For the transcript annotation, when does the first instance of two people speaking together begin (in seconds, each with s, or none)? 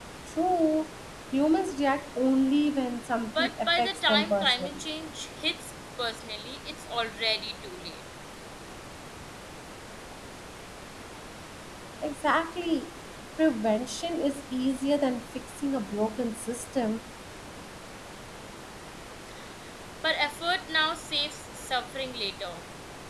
3.4 s